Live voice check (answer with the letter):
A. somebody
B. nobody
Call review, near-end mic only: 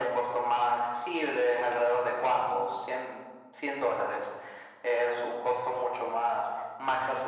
B